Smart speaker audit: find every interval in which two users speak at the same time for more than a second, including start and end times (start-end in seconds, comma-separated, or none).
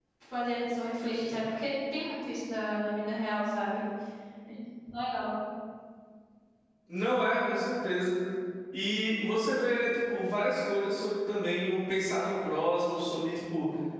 none